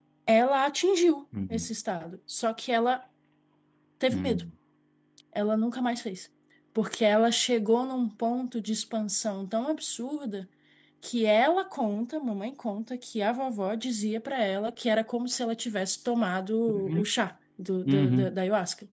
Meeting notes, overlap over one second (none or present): none